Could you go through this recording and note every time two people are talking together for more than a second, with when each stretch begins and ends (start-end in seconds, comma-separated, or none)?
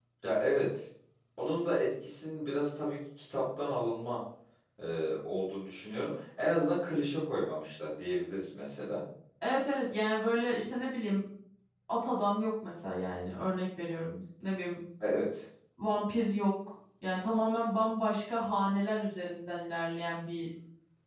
none